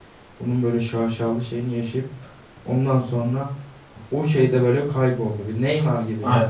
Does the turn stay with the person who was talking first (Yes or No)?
No